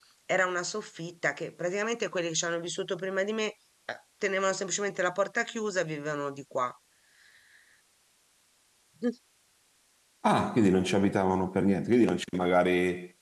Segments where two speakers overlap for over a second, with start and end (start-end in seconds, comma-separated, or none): none